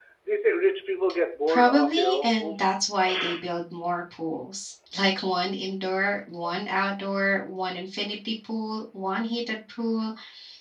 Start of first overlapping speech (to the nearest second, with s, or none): 1 s